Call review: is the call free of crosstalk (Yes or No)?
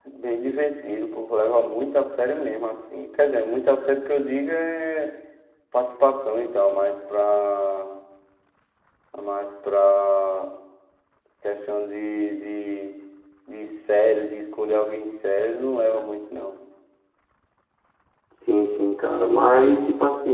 Yes